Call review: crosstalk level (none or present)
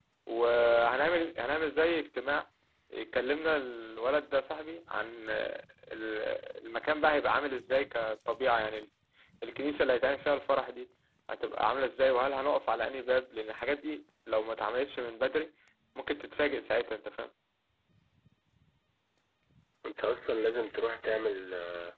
none